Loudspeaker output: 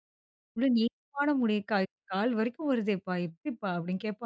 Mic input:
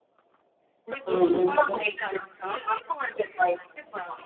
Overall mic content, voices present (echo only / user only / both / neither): both